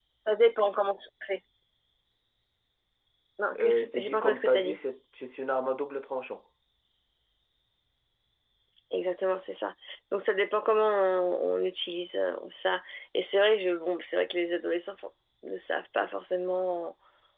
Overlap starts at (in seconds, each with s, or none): 3.6 s